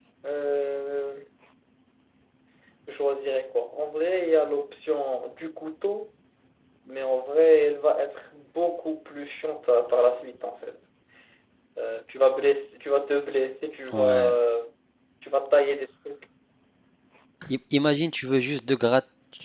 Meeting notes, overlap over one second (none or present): none